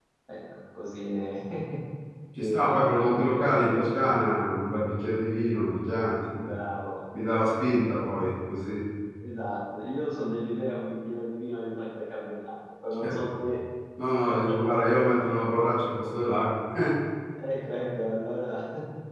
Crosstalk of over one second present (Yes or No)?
Yes